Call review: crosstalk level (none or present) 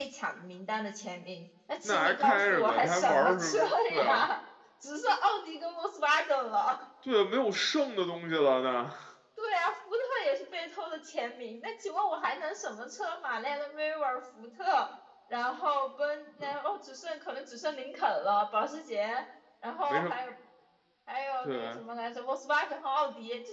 present